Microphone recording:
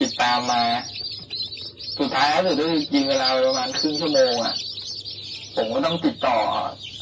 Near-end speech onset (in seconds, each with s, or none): none